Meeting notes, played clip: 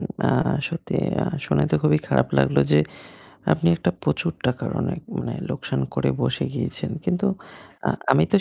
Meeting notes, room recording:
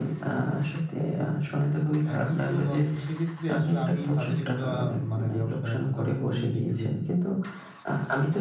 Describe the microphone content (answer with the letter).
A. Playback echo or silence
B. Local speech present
B